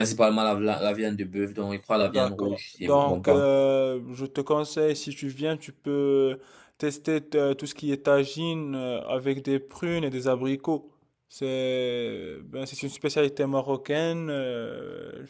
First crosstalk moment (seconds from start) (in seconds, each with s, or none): 2.1 s